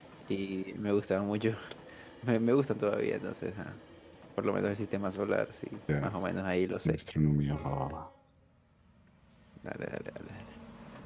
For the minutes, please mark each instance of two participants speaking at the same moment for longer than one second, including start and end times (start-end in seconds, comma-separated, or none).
none